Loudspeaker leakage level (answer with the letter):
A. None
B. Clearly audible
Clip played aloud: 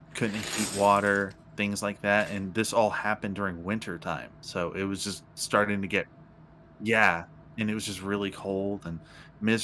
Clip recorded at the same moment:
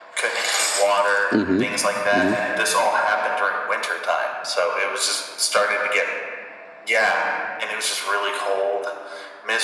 B